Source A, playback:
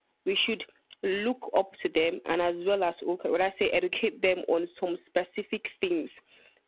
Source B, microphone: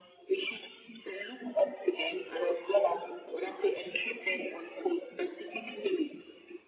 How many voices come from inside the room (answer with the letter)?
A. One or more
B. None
B